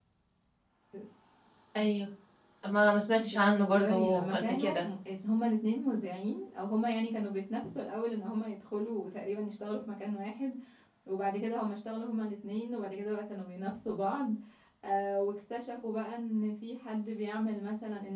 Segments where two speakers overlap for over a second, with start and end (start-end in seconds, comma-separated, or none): 3.2-4.8